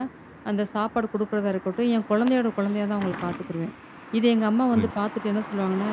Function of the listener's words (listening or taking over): listening